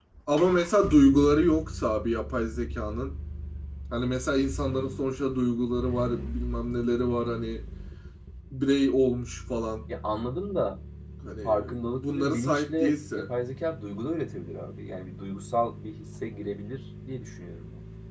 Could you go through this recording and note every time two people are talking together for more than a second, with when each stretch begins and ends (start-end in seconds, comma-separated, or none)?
12.0-13.3